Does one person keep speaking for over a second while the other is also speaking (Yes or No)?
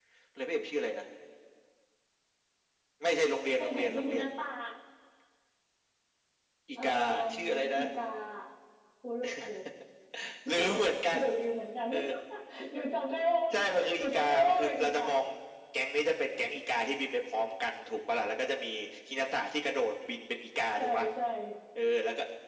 Yes